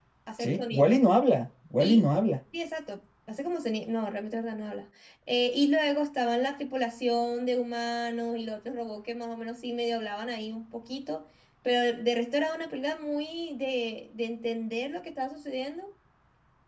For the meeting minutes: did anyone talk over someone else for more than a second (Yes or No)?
No